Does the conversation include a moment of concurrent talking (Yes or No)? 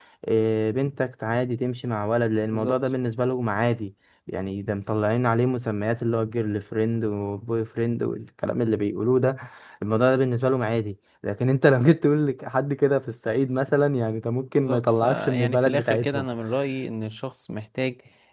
Yes